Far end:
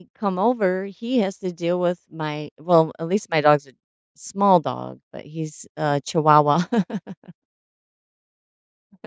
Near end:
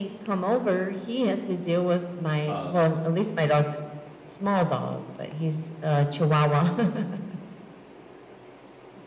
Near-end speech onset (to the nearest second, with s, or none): 2 s